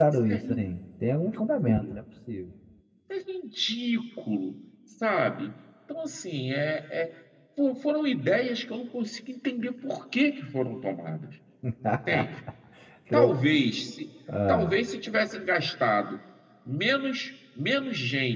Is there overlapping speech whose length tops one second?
No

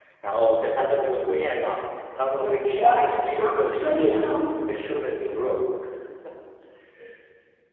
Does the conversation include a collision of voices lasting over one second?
Yes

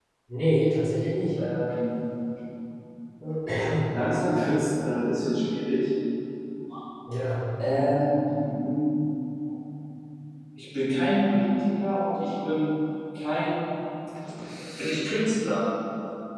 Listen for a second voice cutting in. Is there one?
No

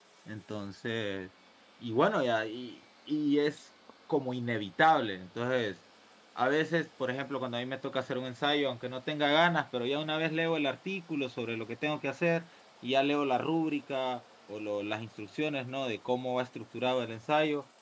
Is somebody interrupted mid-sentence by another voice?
No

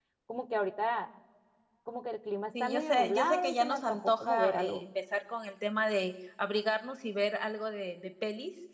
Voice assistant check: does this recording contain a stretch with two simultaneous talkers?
Yes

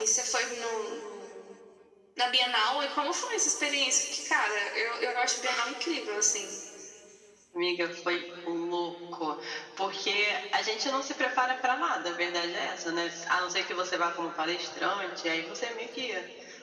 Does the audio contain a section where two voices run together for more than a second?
No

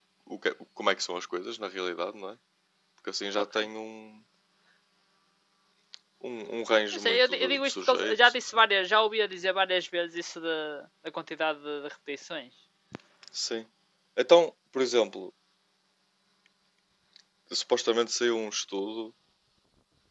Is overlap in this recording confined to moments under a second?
No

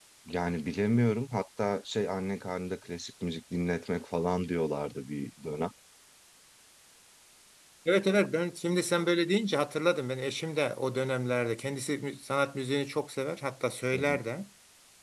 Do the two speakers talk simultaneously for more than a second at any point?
No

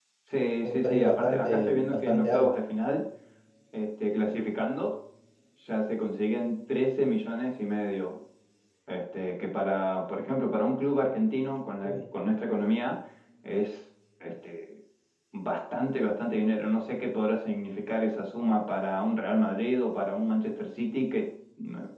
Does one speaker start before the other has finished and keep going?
Yes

